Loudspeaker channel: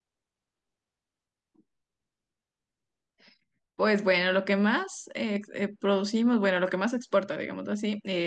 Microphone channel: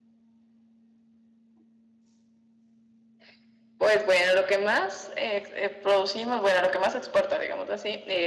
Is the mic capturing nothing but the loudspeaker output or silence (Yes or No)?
Yes